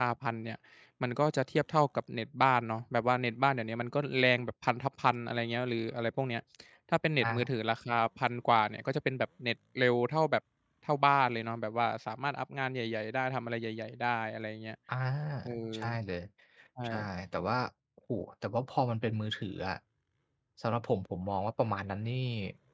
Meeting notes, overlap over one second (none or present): none